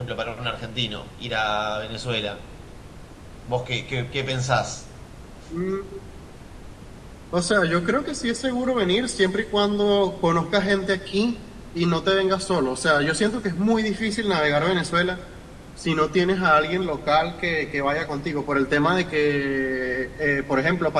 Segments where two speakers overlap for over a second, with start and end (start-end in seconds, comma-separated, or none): none